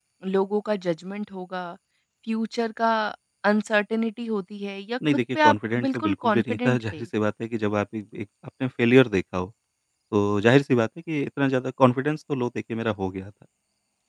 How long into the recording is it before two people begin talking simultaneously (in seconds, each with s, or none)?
5.0 s